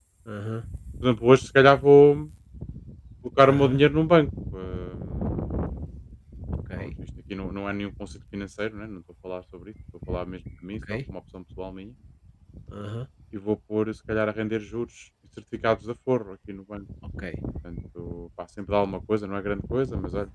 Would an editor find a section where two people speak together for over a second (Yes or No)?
No